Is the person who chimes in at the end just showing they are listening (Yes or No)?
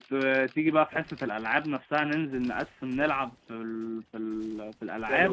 No